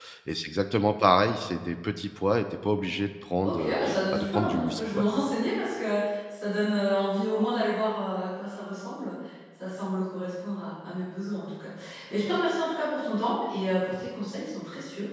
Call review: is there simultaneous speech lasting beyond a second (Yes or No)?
Yes